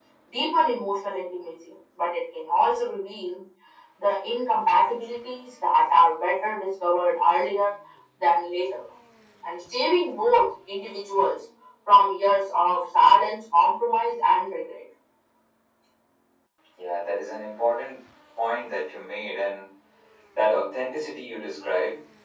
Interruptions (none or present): none